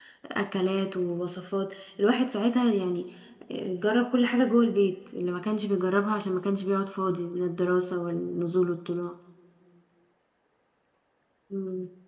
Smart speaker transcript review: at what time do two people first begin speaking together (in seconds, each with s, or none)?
none